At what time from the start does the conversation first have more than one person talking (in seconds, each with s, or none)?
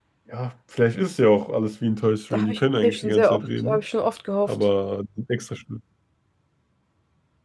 2.3 s